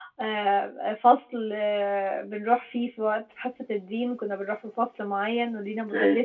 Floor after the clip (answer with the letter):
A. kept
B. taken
A